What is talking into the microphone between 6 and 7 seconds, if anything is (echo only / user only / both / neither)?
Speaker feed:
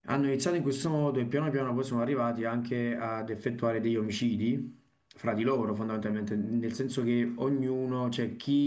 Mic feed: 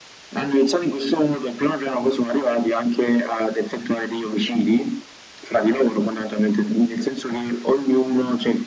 echo only